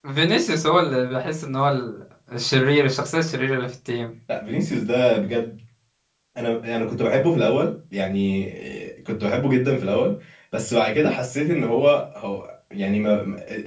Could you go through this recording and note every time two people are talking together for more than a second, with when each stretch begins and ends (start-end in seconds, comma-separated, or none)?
none